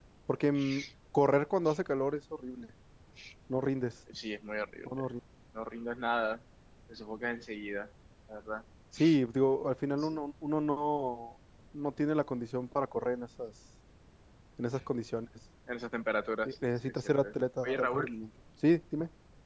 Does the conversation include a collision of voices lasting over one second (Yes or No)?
Yes